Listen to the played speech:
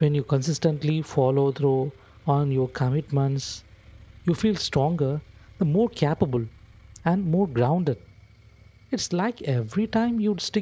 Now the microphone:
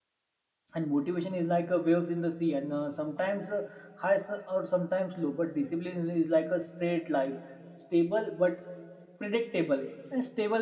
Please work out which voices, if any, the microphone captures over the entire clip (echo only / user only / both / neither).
user only